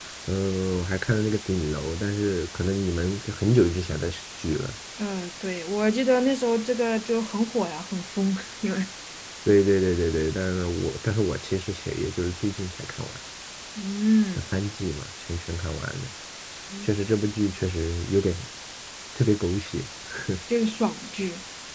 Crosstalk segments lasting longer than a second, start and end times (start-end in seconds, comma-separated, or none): none